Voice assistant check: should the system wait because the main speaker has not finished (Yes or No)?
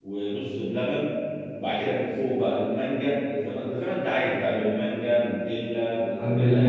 No